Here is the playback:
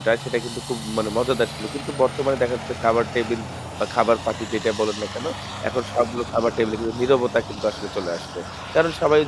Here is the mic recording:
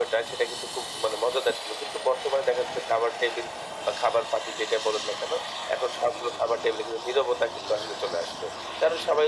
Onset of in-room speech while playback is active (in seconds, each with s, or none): none